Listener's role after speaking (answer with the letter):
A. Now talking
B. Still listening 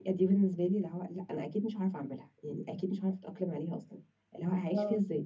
B